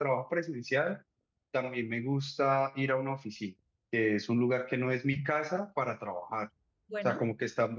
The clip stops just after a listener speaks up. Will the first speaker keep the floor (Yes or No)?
Yes